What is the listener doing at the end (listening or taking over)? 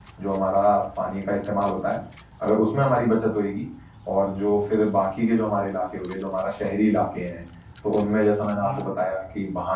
listening